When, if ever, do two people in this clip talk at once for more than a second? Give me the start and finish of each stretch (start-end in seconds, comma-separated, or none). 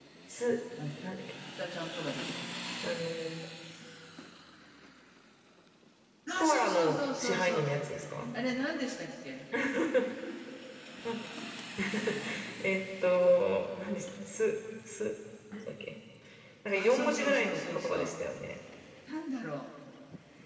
6.4-7.6, 16.7-18.0